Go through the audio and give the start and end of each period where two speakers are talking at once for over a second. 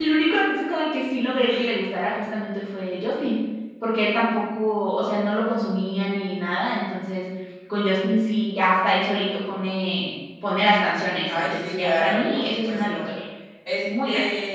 11.3-12.9

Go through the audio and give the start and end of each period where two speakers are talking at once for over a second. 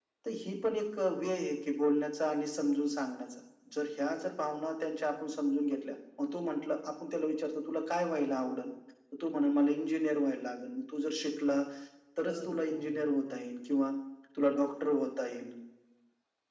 12.2-13.5

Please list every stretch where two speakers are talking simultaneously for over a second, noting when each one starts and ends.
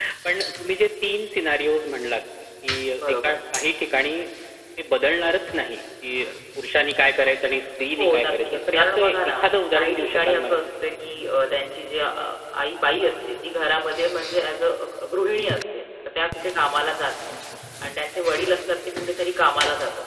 8.0-10.6

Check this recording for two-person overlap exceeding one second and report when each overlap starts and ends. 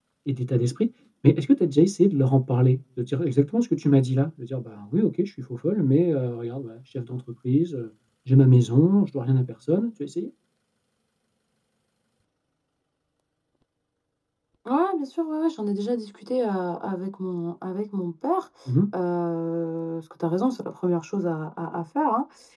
none

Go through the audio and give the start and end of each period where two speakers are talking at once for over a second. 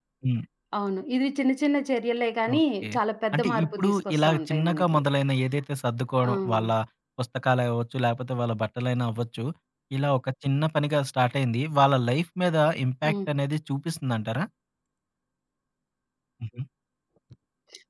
3.3-5.0

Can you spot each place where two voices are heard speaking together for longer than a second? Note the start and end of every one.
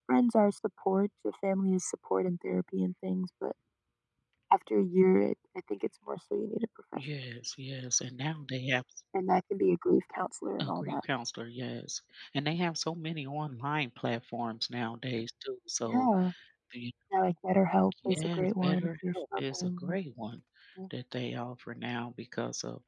18.1-19.9

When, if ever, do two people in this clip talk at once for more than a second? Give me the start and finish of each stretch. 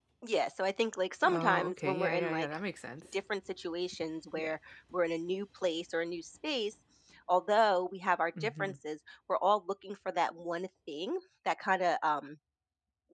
1.2-2.5

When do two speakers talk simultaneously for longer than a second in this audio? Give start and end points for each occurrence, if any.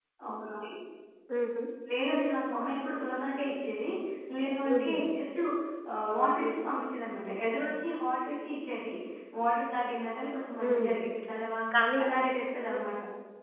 none

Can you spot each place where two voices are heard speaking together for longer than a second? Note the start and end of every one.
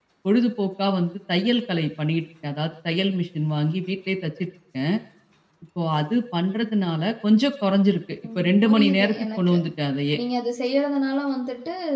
8.3-9.6

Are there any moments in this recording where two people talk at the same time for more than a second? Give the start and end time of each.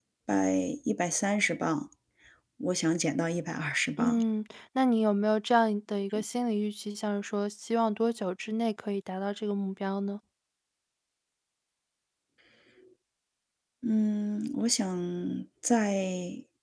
none

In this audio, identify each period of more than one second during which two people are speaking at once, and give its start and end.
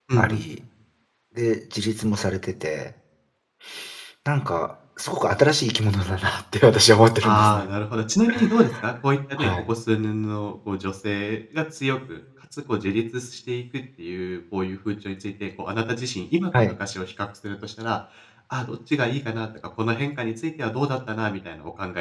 none

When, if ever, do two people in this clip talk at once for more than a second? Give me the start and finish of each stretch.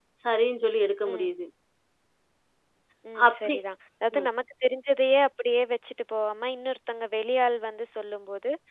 none

